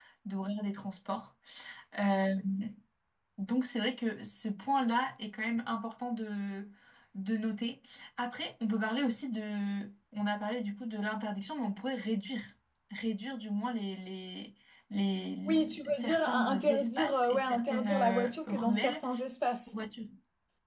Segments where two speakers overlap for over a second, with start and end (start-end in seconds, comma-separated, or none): 15.5-19.0